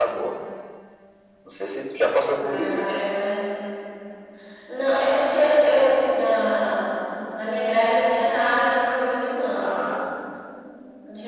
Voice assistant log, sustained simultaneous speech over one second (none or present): none